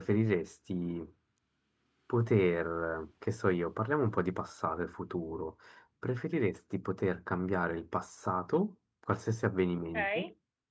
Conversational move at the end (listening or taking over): listening